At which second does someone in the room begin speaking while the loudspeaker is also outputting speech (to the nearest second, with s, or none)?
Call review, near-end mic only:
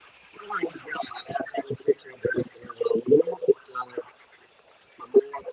none